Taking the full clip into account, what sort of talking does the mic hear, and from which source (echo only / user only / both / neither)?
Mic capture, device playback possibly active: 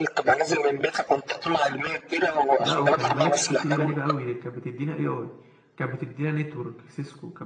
both